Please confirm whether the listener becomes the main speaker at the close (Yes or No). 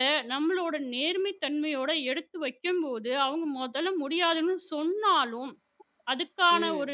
No